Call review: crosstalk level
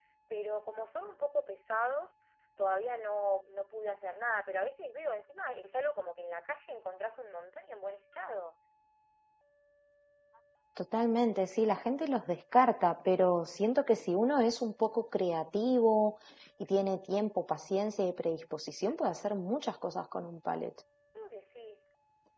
none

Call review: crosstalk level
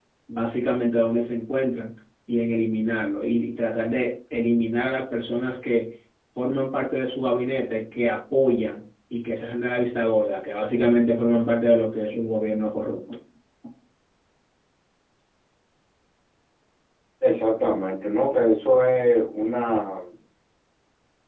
none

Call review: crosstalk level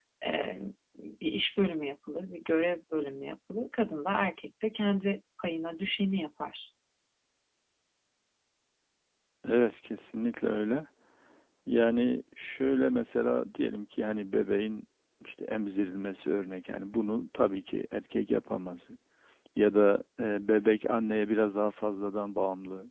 none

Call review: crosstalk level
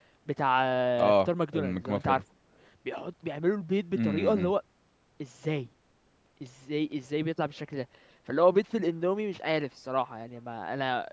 present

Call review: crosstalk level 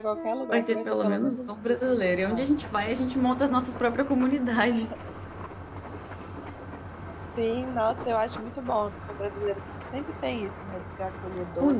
present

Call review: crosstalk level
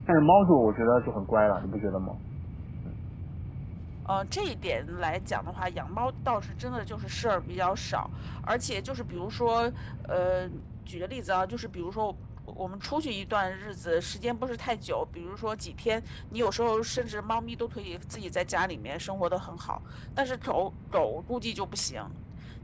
none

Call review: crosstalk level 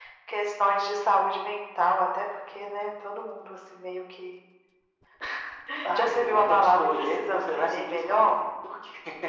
present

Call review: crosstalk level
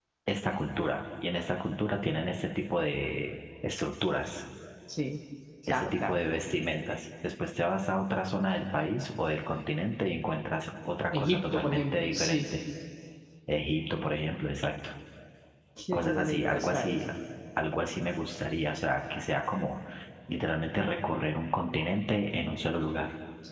present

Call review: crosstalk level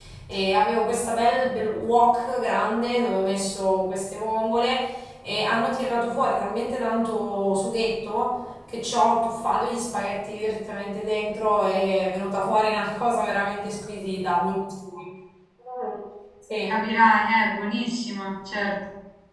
none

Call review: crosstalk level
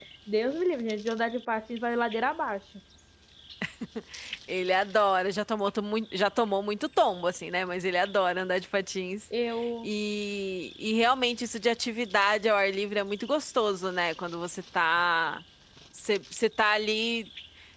none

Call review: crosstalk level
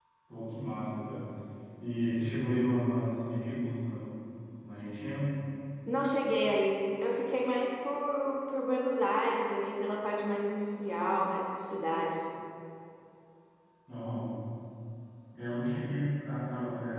none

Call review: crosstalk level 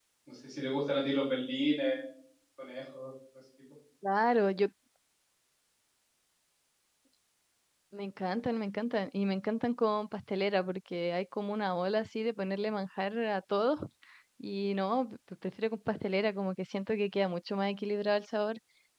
none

